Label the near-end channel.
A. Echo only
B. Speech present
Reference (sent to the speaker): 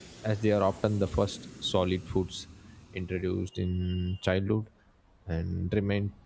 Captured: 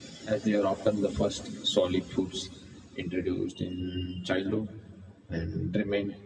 A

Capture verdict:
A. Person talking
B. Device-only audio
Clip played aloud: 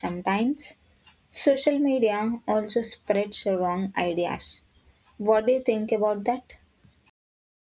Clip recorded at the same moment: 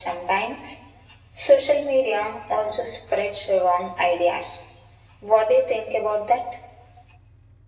B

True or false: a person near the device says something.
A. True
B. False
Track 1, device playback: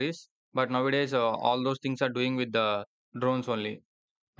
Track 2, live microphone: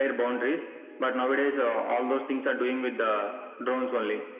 B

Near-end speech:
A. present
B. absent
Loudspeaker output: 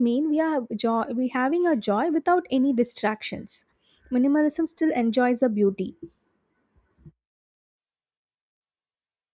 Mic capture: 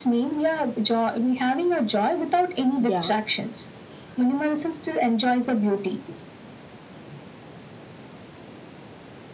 A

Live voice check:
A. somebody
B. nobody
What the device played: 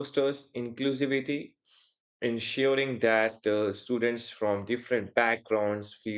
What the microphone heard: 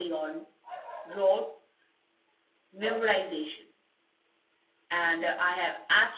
A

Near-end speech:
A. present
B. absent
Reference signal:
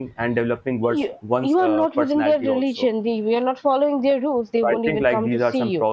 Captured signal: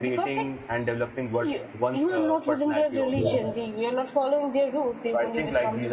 A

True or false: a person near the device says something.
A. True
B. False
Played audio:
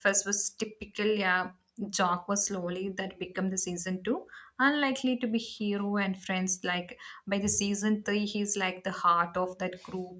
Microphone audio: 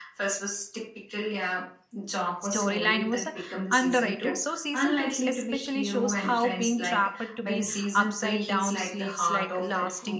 A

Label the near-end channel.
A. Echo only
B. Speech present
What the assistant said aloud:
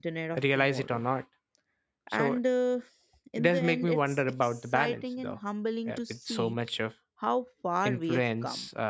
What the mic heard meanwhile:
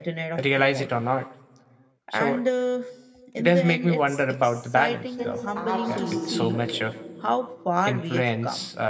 B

